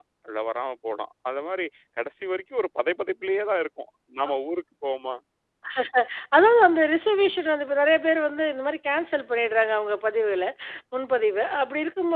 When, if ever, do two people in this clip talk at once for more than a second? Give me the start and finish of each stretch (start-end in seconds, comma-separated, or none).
none